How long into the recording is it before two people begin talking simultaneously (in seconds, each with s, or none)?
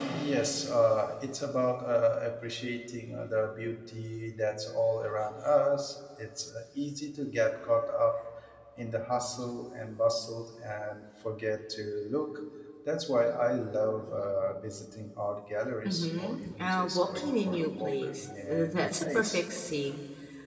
15.8 s